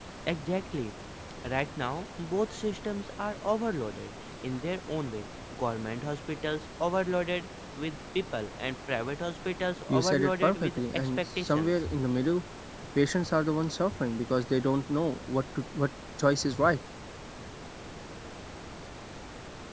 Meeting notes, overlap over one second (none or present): present